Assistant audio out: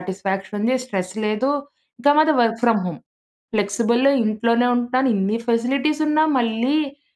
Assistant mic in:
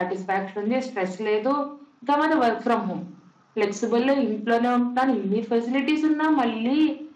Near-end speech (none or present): none